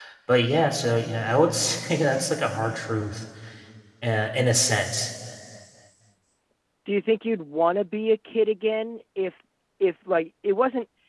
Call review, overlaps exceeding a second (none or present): none